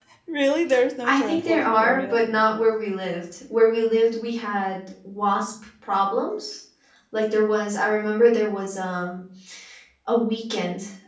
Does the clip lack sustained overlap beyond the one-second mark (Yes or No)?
No